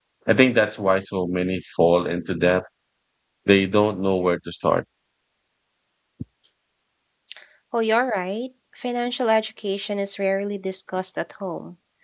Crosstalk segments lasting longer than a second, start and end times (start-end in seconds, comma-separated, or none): none